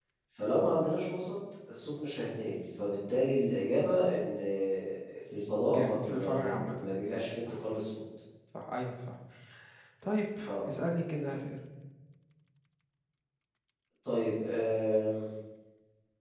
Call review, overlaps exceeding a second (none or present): present